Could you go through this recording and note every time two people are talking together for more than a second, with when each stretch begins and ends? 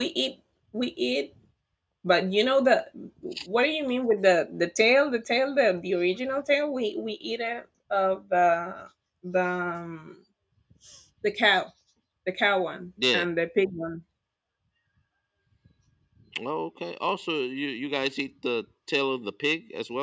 none

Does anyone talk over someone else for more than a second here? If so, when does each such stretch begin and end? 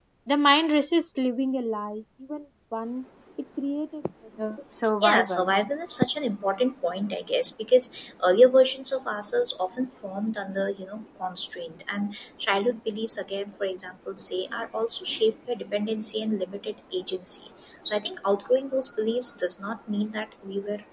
none

